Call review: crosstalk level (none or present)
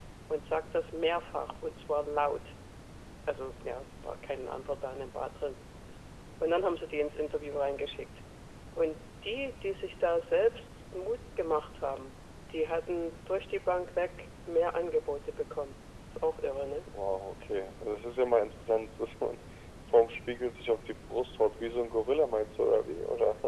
none